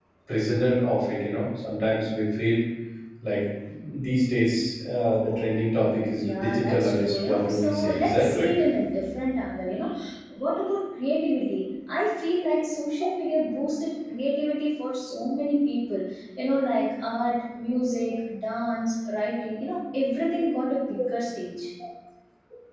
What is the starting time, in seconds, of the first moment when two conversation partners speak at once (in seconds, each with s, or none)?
6.2 s